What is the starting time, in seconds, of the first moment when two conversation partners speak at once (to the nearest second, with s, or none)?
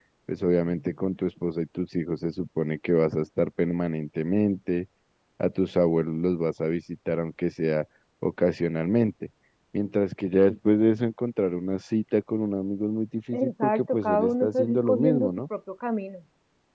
13 s